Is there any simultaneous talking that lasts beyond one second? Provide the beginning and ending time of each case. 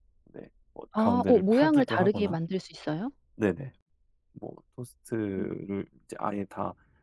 1.0-2.4

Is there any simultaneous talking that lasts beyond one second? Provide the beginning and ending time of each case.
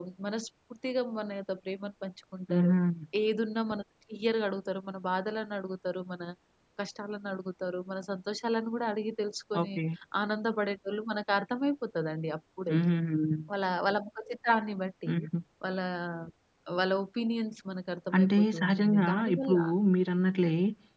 18.2-19.6

